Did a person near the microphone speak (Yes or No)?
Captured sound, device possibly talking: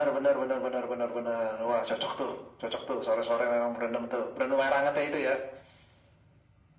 No